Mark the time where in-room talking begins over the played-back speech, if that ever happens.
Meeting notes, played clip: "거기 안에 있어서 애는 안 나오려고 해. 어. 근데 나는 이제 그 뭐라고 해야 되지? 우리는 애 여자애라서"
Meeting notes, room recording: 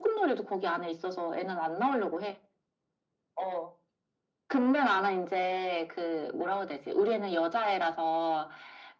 none

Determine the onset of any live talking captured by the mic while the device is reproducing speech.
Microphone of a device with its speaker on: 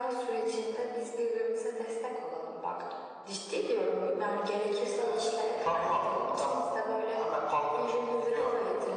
none

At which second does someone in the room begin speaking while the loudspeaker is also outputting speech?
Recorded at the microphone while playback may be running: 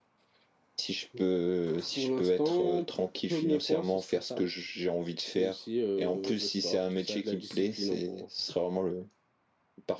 none

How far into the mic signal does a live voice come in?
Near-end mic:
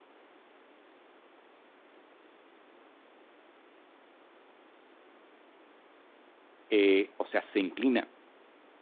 6.7 s

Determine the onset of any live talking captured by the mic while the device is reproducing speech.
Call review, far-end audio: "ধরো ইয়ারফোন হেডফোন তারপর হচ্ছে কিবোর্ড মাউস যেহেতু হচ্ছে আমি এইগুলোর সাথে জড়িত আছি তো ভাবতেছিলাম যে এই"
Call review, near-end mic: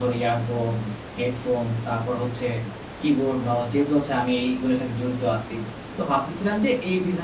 none

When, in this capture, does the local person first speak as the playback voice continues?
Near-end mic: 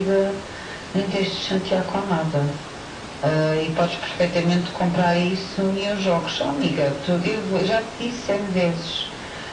none

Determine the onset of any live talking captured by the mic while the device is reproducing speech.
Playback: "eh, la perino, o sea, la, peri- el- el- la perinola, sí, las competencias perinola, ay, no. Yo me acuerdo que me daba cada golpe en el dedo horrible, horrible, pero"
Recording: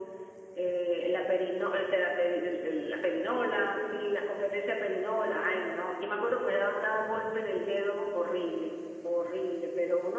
none

